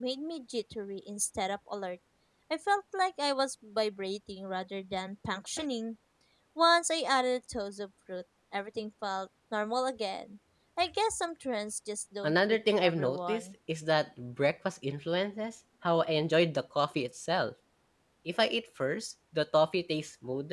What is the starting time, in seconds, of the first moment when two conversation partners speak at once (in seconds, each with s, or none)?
12.2 s